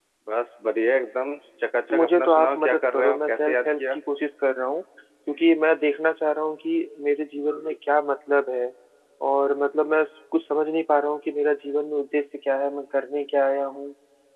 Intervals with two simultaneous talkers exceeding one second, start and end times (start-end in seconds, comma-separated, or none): 1.9-4.0